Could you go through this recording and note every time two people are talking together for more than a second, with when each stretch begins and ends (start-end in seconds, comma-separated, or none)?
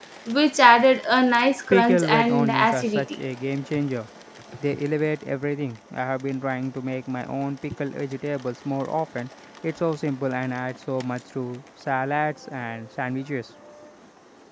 1.7-3.0